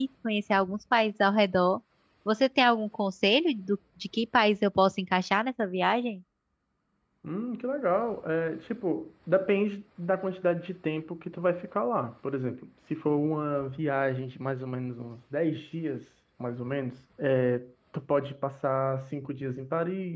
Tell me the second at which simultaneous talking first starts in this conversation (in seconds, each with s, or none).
none